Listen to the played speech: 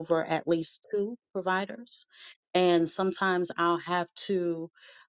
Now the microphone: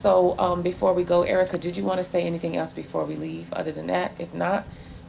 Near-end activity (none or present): present